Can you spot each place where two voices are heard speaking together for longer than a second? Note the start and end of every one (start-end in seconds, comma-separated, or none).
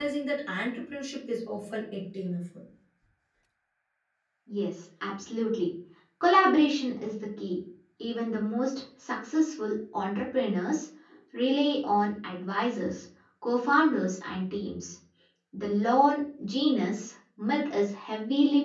none